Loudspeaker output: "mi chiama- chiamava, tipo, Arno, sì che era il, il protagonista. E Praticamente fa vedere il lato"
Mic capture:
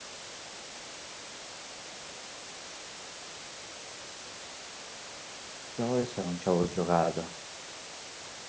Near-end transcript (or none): Te l'avevo detto, non ci avevo giocato.